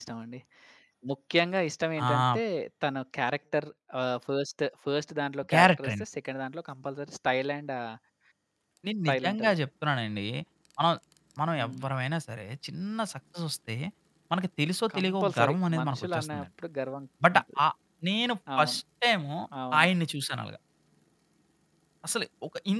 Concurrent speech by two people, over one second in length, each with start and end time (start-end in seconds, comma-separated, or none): 15.0-16.5